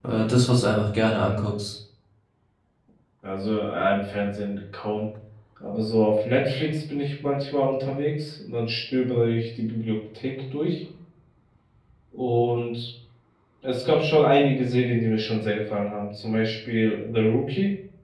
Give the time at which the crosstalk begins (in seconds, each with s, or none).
none